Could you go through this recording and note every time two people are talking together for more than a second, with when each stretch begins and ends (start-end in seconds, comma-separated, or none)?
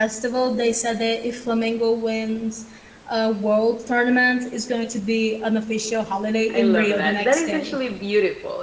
6.5-7.8